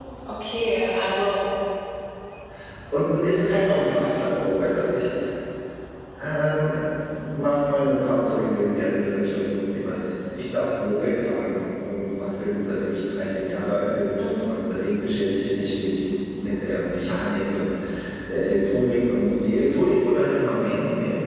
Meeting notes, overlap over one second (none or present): none